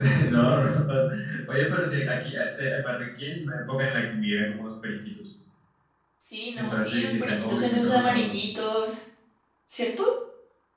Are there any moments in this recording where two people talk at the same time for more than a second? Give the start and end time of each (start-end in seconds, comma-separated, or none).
6.5-8.3